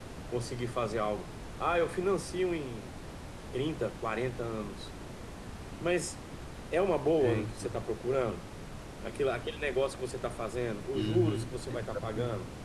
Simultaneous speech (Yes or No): Yes